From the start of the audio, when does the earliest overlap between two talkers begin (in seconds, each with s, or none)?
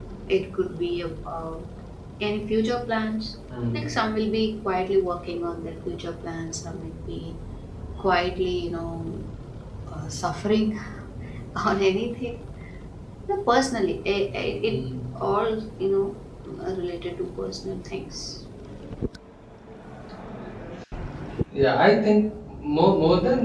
none